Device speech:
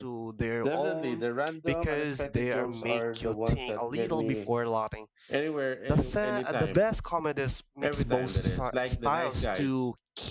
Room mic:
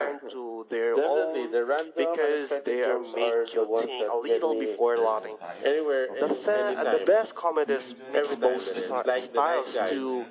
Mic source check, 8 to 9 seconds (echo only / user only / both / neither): both